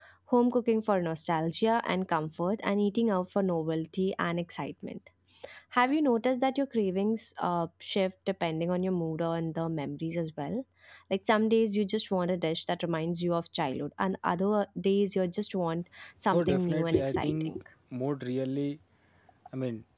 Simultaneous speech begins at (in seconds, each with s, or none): 16.2 s